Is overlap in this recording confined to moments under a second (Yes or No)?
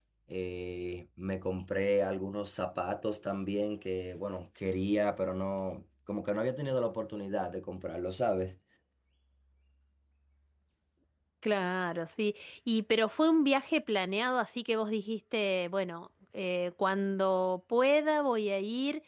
Yes